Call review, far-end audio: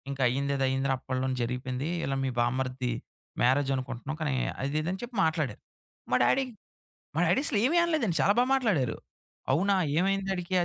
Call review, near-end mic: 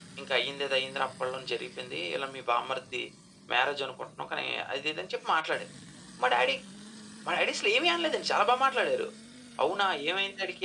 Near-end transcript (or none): none